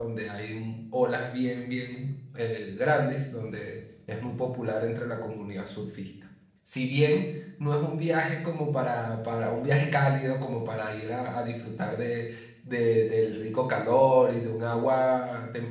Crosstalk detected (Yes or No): No